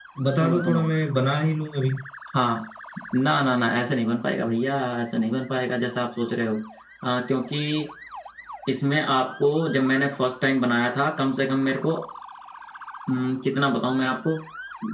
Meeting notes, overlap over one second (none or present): none